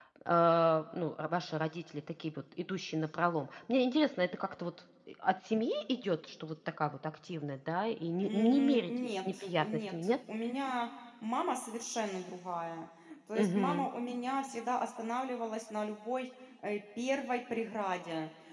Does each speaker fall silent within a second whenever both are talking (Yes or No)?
No